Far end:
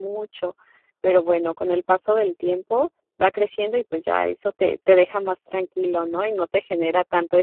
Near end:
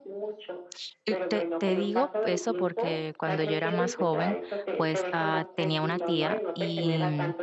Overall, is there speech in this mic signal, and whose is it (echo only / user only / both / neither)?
both